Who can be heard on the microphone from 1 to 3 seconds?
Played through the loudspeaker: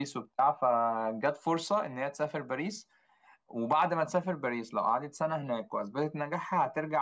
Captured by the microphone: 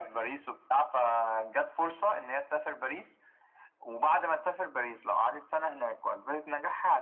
echo only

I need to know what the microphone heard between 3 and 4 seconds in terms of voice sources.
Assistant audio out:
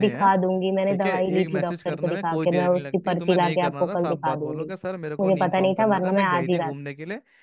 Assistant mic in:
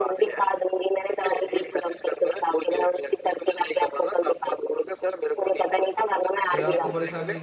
echo only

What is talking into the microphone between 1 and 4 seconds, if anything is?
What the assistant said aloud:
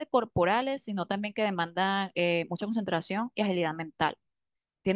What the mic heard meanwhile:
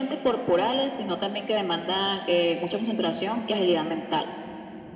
echo only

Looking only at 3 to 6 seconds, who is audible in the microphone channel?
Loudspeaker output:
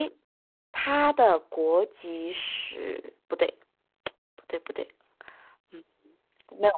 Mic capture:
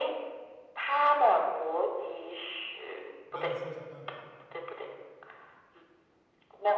both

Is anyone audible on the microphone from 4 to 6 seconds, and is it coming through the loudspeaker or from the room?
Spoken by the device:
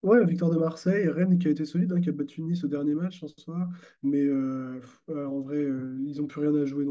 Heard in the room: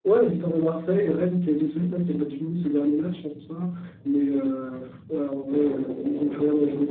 echo only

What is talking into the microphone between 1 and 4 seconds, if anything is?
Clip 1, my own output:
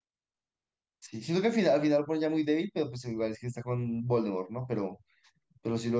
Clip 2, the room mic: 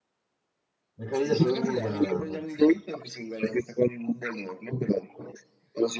both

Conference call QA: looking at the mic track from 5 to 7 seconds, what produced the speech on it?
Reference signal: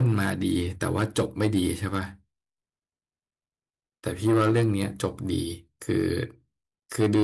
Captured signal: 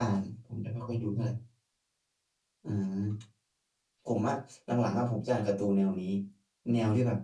user only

